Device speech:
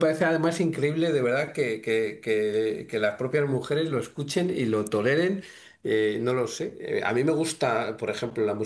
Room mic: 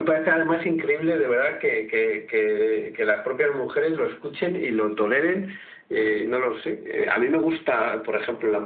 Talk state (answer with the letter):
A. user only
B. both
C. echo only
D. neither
C